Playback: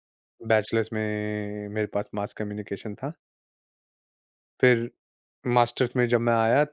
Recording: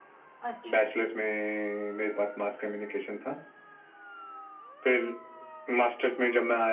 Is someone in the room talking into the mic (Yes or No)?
Yes